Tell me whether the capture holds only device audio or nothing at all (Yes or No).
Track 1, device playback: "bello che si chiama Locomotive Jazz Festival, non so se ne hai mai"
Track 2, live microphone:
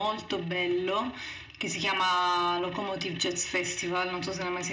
Yes